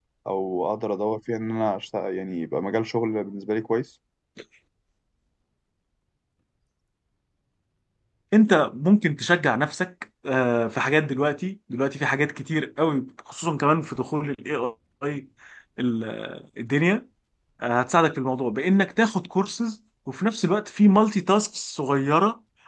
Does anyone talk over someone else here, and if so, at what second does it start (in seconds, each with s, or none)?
none